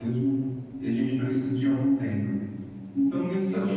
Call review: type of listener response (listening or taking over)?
listening